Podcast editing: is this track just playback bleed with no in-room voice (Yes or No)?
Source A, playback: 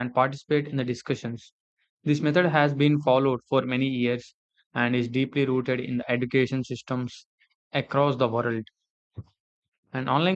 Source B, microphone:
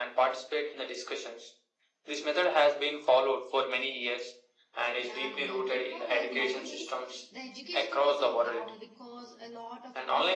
No